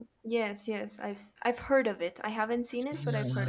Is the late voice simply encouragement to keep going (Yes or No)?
No